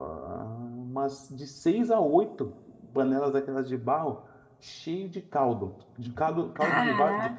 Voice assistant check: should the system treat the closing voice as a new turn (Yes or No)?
No